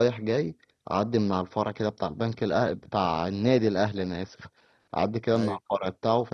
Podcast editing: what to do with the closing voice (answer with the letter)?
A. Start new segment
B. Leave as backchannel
B